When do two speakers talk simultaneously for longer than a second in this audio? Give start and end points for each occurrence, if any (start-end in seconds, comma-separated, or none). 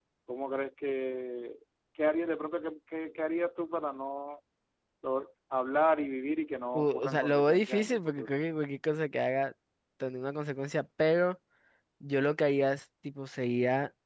6.8-8.3